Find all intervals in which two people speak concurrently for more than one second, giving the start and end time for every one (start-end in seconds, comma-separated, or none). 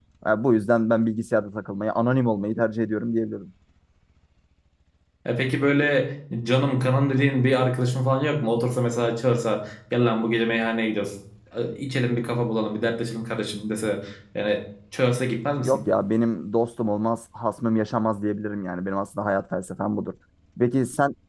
none